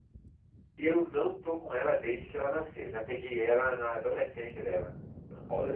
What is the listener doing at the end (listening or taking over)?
listening